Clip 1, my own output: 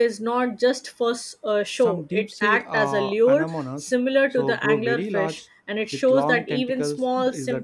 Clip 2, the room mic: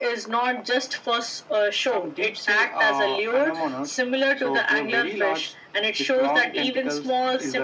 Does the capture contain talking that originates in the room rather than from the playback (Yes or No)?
No